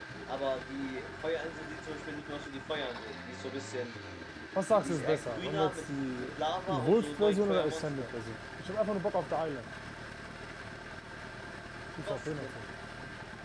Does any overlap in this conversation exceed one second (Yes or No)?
Yes